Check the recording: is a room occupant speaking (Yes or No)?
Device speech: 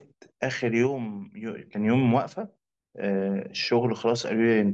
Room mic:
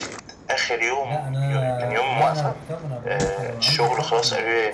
Yes